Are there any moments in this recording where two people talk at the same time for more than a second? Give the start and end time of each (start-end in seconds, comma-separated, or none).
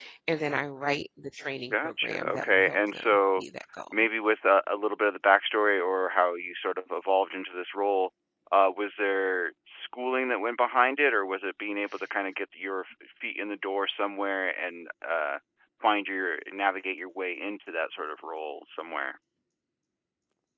1.7-3.4